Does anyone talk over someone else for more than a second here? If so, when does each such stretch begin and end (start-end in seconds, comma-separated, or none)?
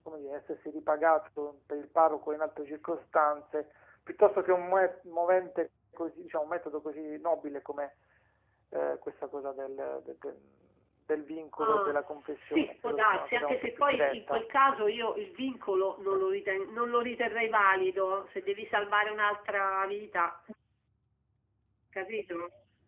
12.5-14.4